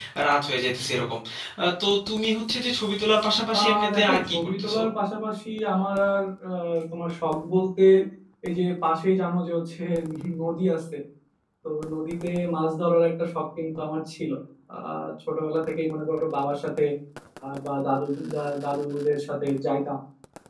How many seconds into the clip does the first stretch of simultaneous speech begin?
3.5 s

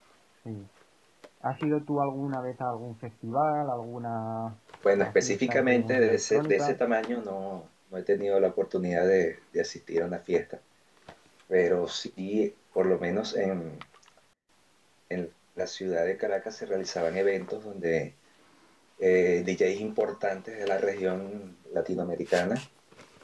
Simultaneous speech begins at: 4.8 s

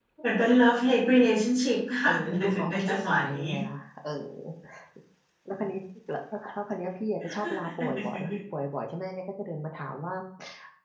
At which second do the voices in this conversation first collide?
2.0 s

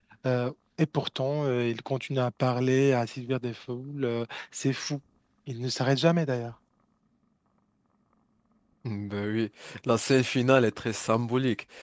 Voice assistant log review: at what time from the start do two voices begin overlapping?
none

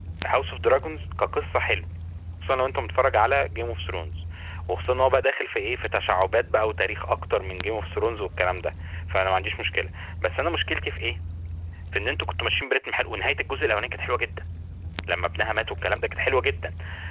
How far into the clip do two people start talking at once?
none

